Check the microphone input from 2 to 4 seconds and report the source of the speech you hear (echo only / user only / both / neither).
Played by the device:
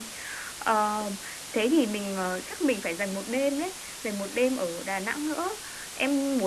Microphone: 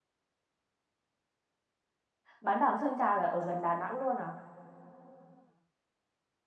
user only